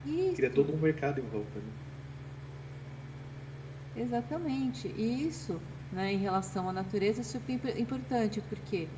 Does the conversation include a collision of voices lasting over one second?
No

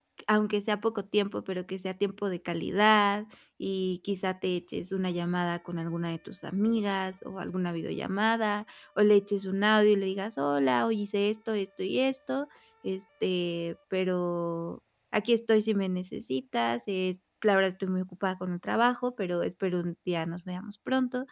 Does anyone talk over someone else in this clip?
No

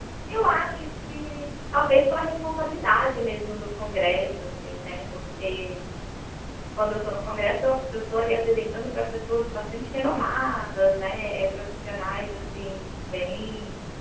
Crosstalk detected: No

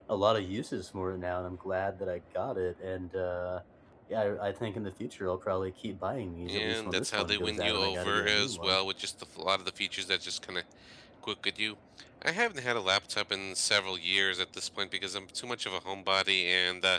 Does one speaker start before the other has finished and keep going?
Yes, from 6.5 s

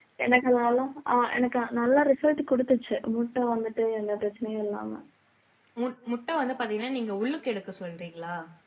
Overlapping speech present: No

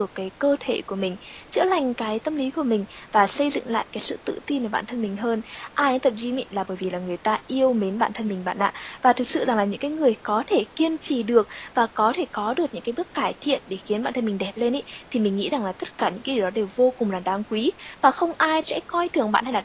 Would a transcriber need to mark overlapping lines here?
No

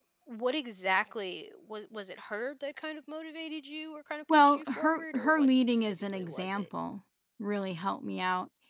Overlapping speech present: Yes, from 4.3 s

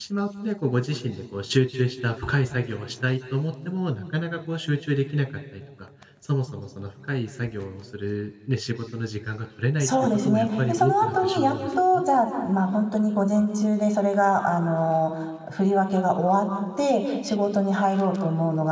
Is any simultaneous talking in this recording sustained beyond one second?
Yes, from 9.8 s

